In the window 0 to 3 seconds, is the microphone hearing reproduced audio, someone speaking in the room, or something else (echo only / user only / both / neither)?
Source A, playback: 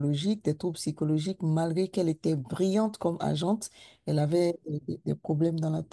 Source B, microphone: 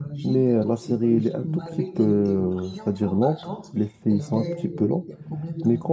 both